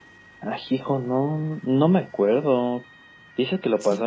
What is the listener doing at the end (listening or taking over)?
listening